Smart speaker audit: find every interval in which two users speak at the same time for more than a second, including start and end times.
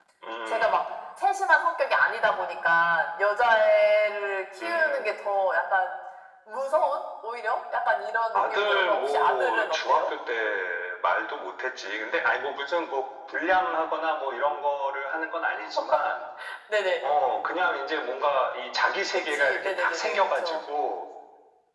8.3-10.1, 19.1-20.6

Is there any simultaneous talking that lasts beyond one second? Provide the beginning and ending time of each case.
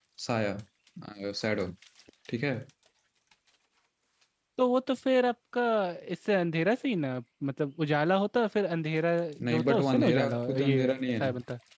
9.4-11.3

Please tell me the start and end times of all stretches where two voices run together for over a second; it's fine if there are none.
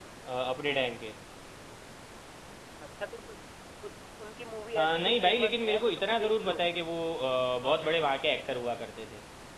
4.8-6.6

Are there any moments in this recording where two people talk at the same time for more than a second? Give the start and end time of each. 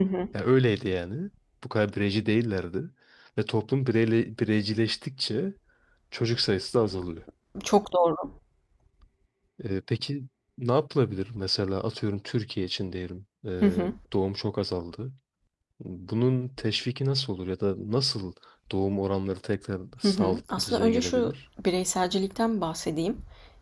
20.0-21.3

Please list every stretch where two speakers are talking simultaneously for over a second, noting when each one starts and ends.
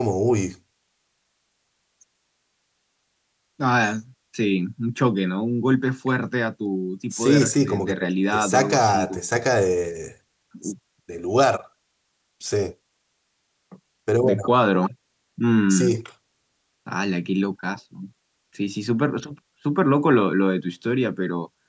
7.1-9.2

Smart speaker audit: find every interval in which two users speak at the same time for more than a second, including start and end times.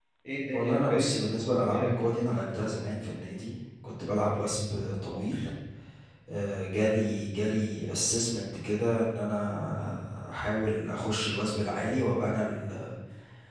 0.5-2.1

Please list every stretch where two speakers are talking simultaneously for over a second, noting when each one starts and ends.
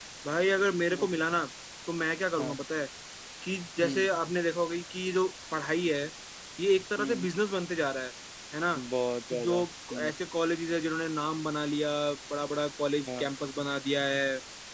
none

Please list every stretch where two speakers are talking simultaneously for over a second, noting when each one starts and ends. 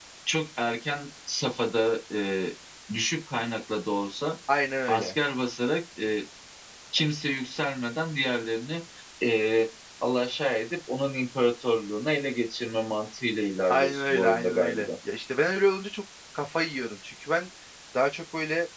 13.7-14.9

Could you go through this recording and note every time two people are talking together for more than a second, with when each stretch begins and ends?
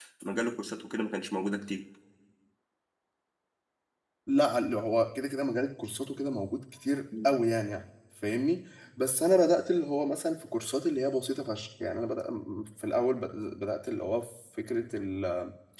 none

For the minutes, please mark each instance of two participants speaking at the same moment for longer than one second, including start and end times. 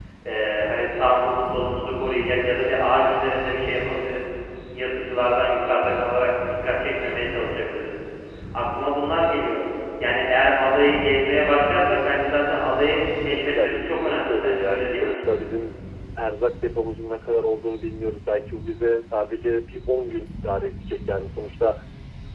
13.6-15.1

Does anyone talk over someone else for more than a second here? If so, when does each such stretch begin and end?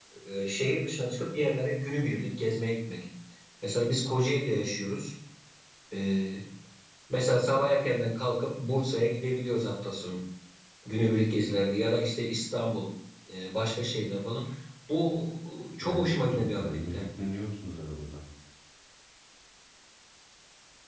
15.8-17.0

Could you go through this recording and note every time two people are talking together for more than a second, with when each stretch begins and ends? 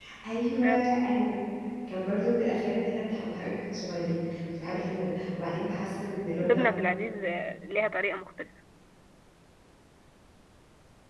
none

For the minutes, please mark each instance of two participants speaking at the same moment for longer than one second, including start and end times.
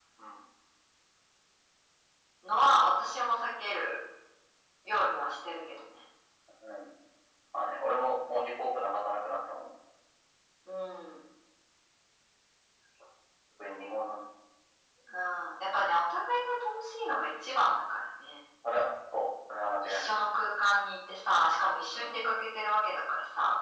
none

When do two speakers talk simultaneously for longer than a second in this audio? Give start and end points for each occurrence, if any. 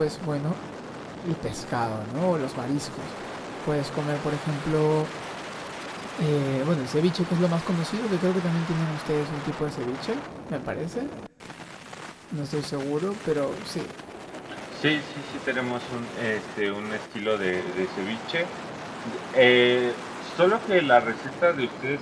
none

